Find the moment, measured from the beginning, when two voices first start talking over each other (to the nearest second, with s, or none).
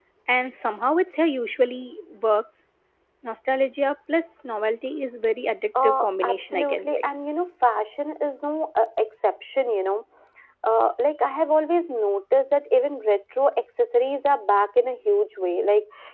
6 s